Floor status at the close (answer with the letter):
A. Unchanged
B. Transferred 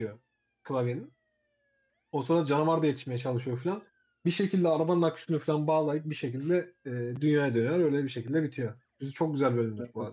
B